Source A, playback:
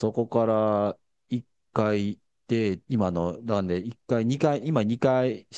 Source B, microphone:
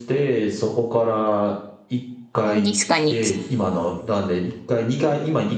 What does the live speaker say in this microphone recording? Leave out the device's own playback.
なんですかね。ち

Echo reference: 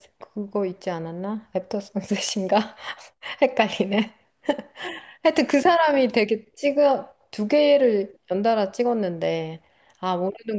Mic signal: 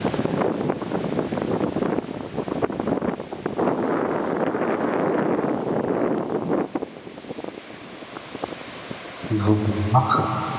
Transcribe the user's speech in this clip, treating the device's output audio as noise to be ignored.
그거 뭐였나?

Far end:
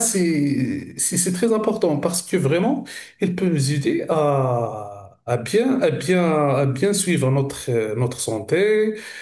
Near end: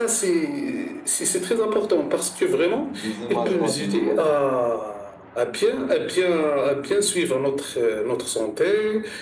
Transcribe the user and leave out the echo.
Des images radio, oui.

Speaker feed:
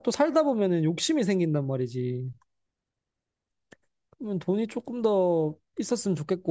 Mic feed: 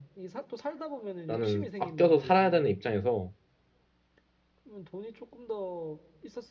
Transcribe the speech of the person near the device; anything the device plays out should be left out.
나는 아껴서 살아야 되는 입장에서

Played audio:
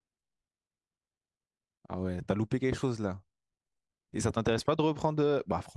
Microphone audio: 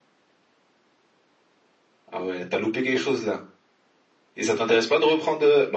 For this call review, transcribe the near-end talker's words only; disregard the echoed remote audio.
none

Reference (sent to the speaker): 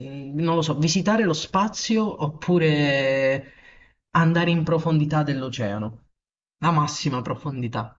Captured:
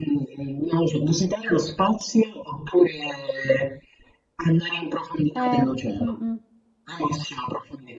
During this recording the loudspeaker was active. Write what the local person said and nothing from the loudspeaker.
eh, mm, mm.

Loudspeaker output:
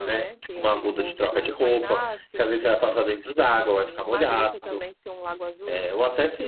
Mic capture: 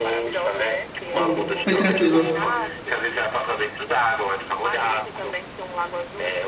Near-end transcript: Ou foi tranquilo?

